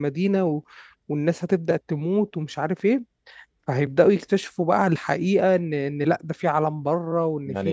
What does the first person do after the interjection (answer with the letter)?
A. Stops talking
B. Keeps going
A